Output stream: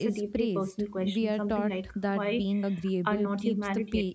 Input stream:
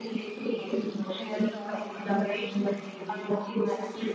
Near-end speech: none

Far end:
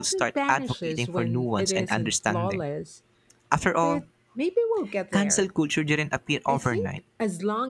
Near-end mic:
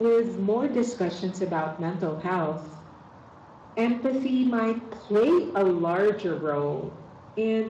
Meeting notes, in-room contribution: present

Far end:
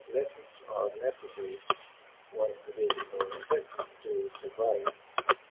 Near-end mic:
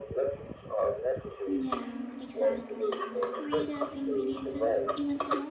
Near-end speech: present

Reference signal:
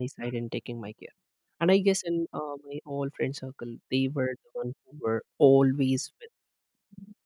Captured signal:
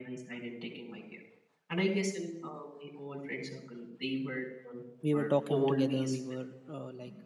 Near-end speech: present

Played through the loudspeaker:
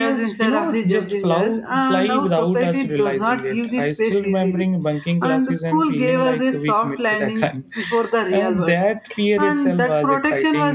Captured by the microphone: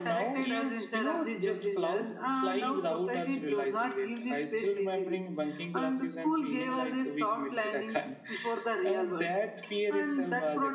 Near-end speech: none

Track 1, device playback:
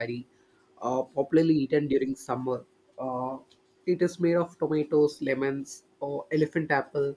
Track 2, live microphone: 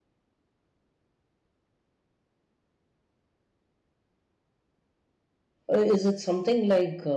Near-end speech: present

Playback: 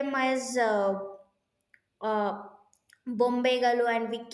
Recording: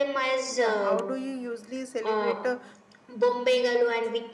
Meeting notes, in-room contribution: present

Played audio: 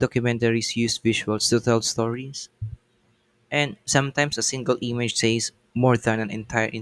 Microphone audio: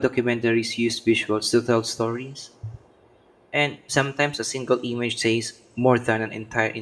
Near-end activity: none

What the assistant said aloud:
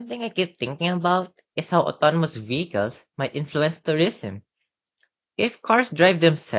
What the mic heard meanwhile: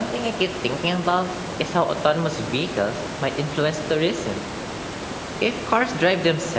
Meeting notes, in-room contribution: none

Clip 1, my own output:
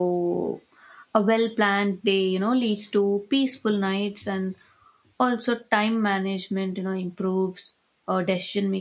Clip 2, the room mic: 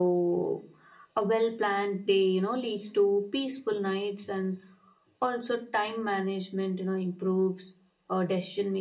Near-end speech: none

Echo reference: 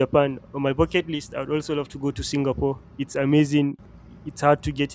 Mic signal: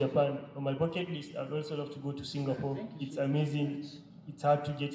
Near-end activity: present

